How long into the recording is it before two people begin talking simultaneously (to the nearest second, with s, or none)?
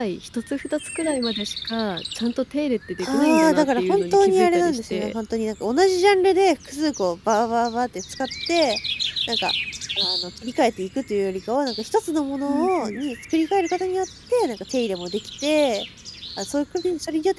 3 s